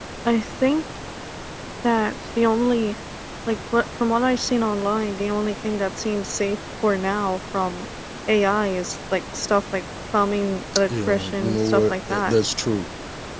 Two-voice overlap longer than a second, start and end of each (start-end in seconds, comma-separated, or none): 10.9-12.4